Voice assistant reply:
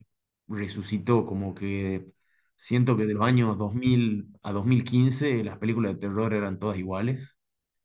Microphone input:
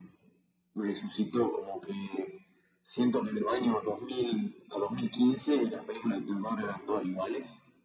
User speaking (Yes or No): No